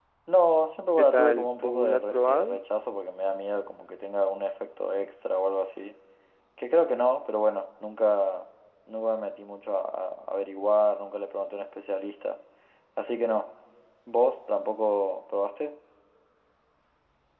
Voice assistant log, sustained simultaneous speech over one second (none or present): present